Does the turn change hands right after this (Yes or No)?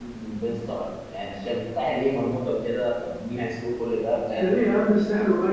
Yes